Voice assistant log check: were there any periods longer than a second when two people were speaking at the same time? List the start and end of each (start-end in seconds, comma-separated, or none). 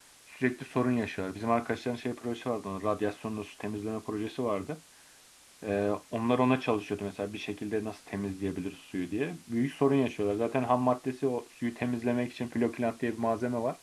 none